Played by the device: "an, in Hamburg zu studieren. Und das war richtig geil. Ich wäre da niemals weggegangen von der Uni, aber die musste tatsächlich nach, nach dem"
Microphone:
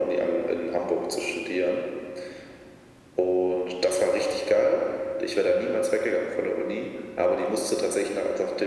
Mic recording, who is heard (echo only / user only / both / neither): echo only